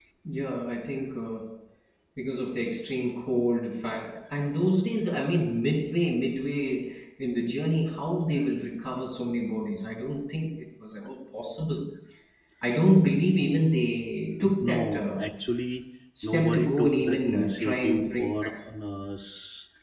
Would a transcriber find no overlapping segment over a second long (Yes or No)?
No